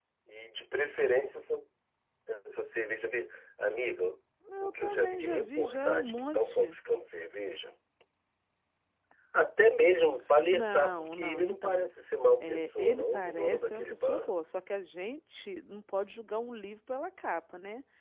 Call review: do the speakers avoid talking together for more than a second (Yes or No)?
No